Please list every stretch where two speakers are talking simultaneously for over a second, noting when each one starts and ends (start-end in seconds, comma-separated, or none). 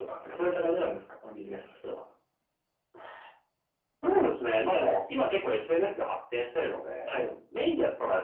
none